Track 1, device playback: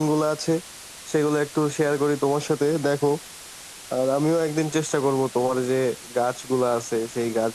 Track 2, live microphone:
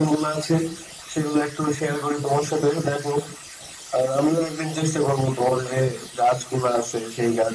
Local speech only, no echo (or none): none